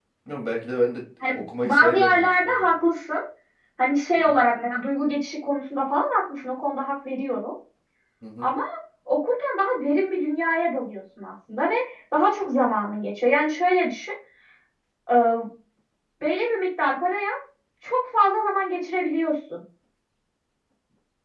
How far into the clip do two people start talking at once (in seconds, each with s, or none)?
1.2 s